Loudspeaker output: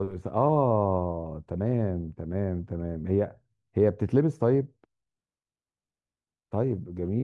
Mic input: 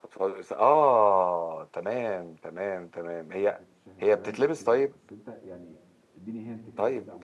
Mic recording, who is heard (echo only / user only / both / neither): both